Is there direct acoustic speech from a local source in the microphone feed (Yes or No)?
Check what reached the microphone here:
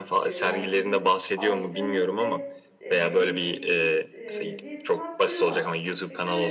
Yes